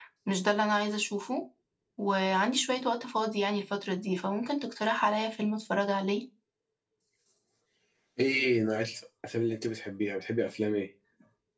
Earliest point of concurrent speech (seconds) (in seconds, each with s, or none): none